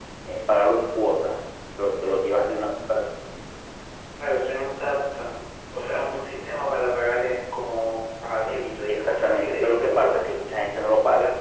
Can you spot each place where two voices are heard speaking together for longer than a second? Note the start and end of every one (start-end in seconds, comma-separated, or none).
8.9-10.3